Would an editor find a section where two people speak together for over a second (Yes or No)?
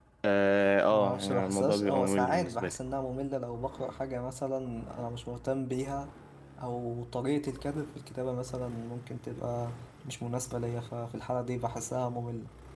Yes